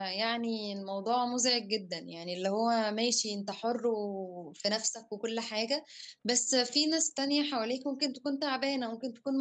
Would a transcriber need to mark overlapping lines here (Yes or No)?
No